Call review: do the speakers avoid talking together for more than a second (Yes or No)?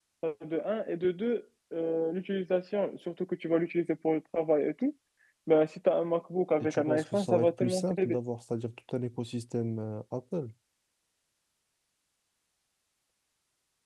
No